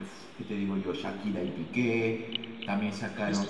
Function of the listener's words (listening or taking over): listening